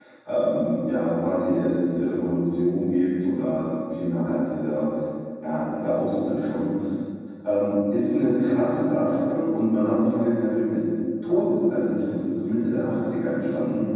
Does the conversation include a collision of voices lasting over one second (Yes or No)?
No